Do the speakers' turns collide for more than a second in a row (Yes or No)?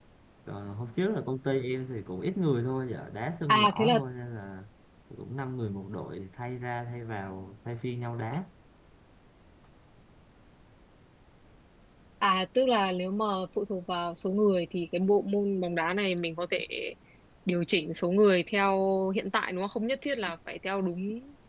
No